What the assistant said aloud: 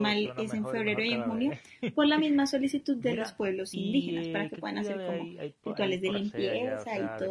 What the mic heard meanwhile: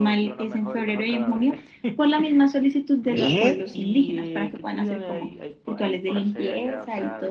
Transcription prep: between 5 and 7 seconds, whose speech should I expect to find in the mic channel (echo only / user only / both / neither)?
echo only